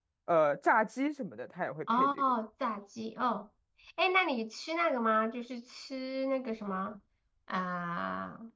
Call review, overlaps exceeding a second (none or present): none